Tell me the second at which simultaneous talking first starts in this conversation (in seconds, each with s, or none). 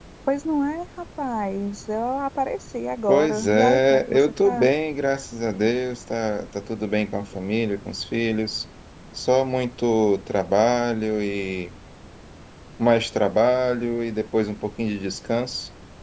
3.1 s